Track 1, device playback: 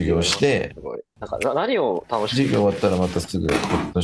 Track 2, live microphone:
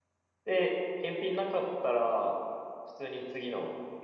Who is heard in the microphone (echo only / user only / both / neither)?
user only